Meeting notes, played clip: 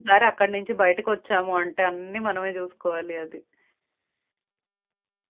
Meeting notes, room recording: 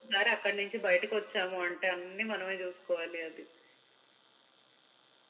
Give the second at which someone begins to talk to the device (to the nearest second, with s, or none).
none